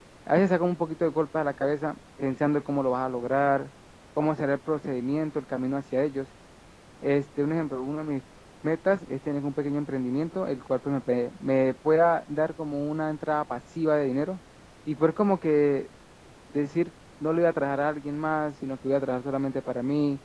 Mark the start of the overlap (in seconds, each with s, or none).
none